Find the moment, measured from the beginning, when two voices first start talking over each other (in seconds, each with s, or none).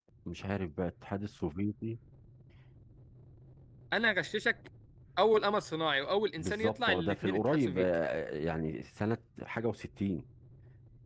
6.4 s